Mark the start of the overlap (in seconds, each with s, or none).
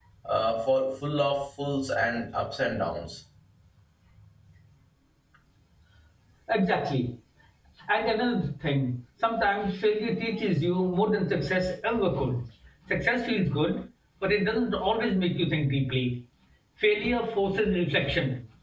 none